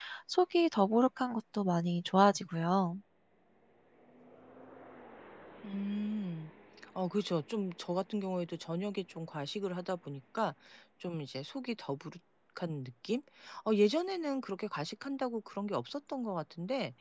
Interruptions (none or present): none